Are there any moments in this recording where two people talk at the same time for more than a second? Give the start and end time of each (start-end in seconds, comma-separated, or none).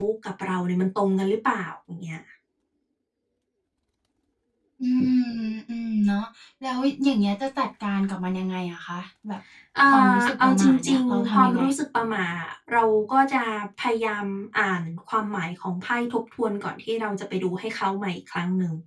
9.9-11.6